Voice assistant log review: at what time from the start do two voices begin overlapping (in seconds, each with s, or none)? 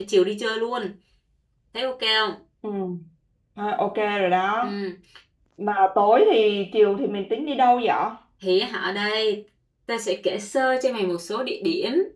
none